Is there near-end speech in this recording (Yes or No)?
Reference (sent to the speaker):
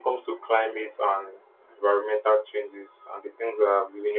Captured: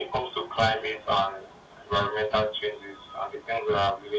No